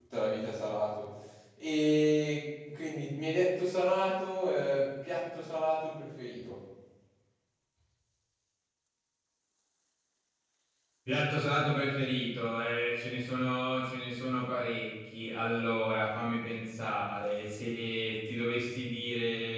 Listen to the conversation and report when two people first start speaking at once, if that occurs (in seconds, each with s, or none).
none